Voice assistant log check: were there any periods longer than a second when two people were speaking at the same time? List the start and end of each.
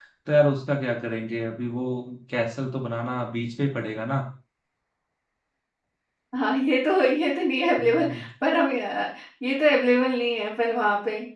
none

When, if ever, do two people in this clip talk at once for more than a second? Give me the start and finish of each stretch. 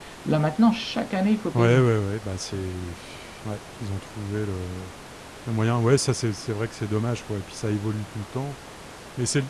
none

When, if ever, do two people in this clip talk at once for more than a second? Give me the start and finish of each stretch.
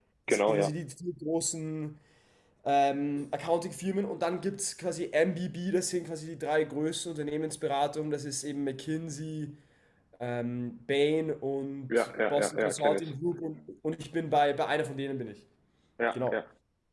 11.9-13.1

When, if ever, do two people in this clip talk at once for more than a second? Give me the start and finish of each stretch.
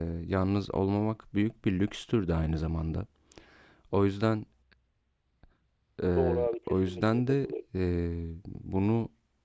6.2-7.5

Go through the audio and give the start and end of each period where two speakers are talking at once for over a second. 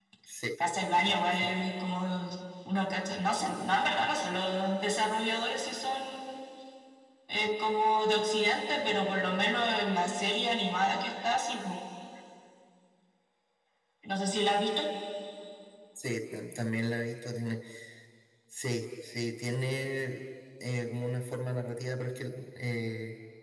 none

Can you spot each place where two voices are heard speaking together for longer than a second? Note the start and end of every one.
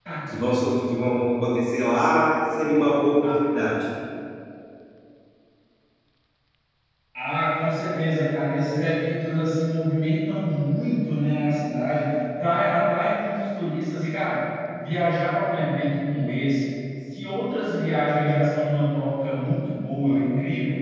none

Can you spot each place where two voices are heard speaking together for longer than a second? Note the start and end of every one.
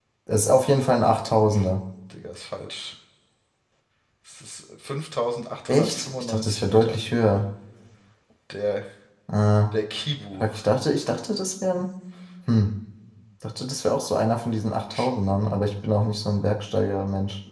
5.7-7.0

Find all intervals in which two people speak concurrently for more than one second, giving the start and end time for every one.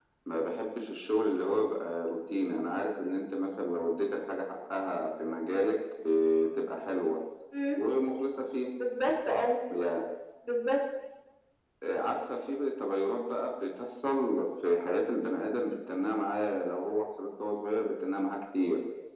none

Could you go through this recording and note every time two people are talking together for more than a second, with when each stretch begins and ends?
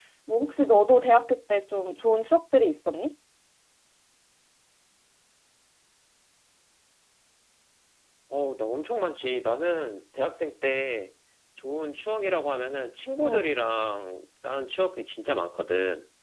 none

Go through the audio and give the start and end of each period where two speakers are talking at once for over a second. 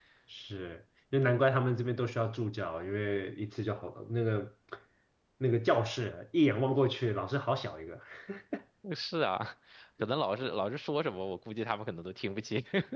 none

